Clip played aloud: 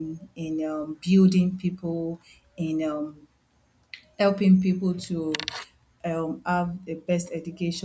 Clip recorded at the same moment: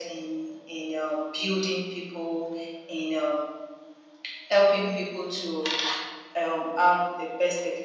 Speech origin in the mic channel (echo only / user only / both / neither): echo only